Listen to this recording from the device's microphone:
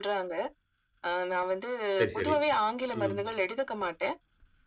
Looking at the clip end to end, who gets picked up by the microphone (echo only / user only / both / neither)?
both